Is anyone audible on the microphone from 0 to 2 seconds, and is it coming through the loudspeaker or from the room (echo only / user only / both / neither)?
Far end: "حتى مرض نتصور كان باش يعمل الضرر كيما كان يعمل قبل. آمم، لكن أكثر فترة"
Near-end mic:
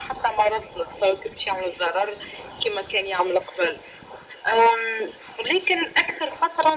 echo only